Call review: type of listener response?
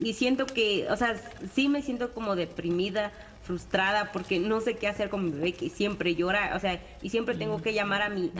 listening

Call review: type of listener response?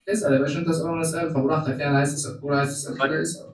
taking over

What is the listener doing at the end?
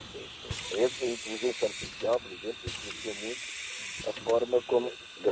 listening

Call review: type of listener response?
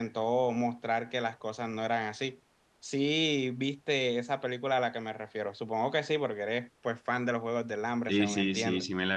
taking over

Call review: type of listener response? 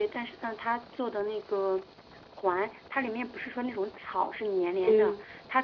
listening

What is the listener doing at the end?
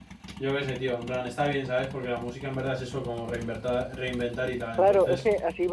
taking over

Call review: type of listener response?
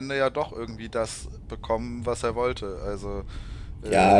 taking over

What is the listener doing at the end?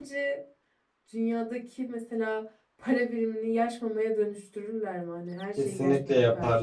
taking over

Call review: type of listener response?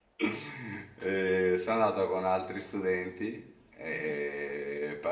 listening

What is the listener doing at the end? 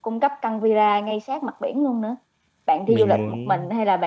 listening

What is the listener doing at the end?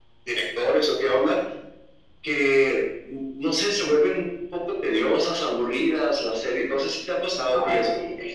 taking over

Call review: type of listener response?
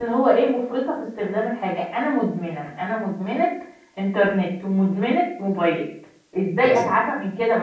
listening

